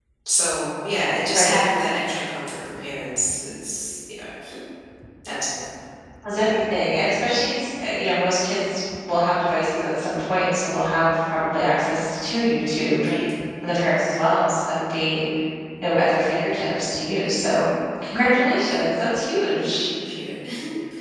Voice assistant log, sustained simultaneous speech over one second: none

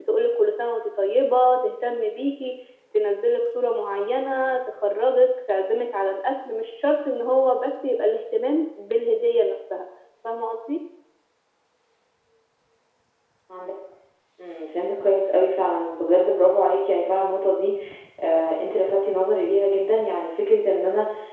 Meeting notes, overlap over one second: none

